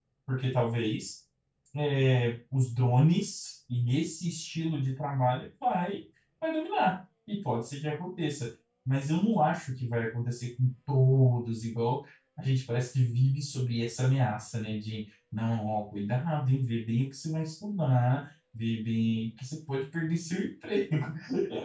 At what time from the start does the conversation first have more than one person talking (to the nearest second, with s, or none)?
none